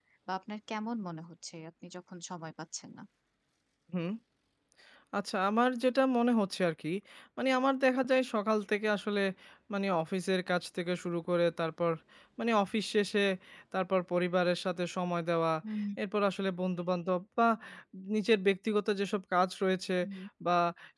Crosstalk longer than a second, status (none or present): none